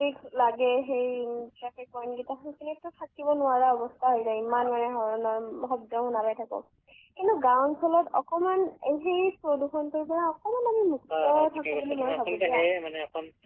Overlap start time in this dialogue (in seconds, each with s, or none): 11.1 s